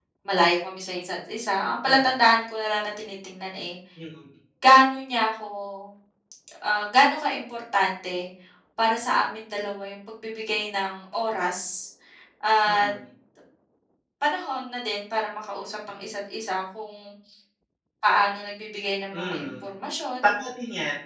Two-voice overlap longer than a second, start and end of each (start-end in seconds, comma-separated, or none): none